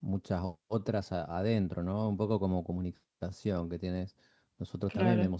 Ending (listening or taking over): listening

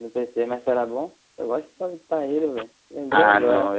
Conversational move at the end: taking over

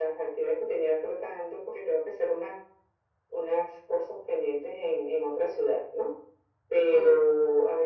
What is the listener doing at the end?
listening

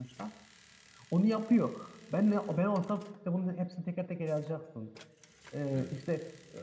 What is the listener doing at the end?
listening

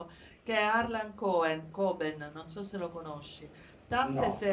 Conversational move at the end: listening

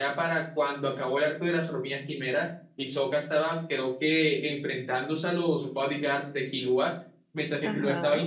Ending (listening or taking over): listening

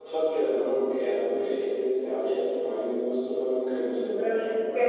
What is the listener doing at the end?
taking over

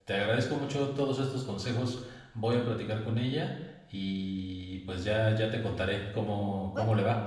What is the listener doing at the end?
taking over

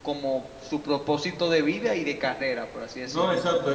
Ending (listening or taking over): taking over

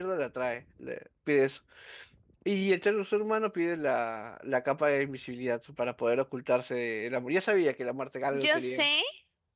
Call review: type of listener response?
taking over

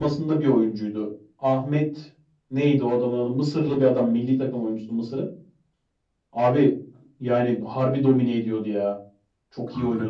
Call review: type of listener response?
taking over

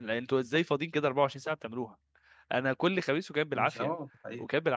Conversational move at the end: listening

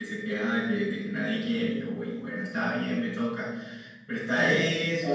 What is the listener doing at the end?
taking over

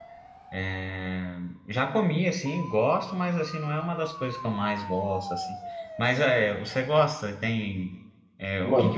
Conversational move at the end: taking over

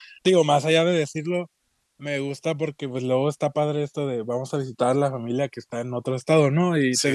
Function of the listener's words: listening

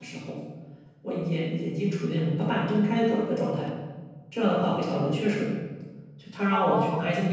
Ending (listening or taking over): listening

